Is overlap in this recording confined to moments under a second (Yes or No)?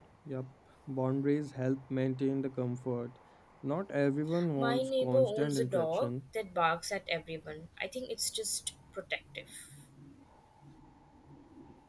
No